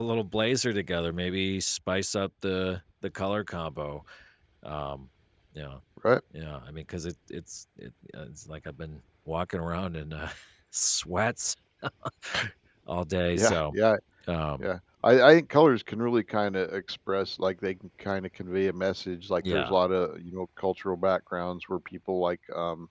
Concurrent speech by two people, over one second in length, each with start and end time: none

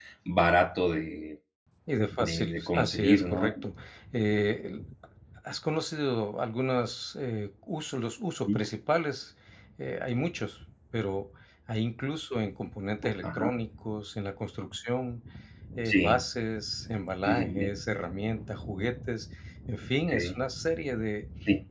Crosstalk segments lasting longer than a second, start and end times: 2.2-3.5

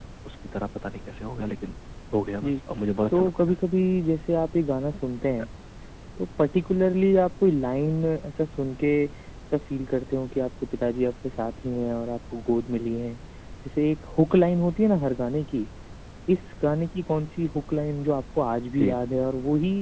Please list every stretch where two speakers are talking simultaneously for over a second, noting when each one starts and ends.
none

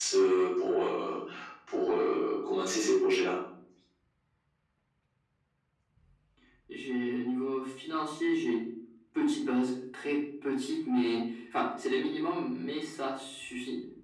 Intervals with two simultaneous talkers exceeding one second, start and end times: none

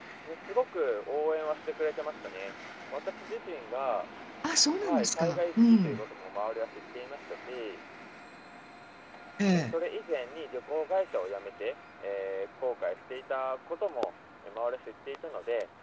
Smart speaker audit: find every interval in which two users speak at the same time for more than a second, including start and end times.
4.8-6.0

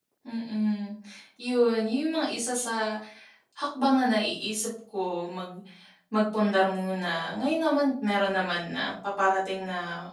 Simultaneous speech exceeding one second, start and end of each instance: none

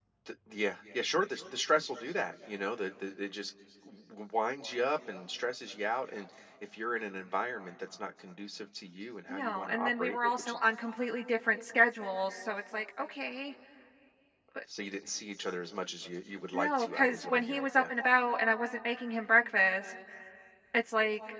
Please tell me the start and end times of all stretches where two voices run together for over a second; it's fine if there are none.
9.3-10.6, 16.5-17.8

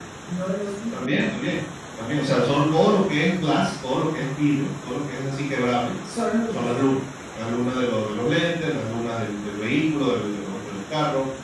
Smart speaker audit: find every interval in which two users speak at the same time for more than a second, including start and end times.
none

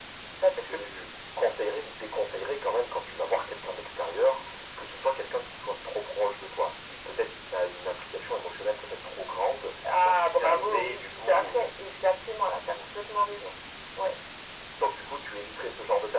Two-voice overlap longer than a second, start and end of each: 10.0-11.7

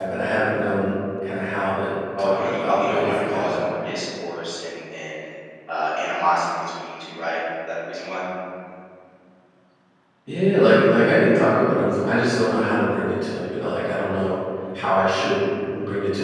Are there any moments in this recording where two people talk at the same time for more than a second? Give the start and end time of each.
2.2-3.6

